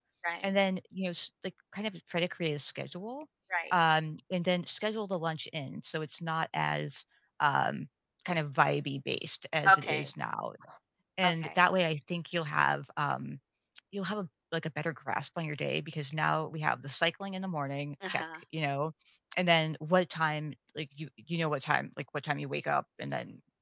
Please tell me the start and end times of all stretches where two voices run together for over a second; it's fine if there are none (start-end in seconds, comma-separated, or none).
none